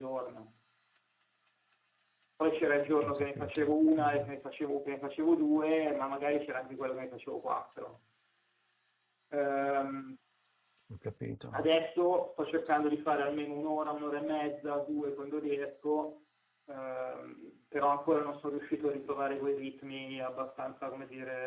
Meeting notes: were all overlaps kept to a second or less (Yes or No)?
No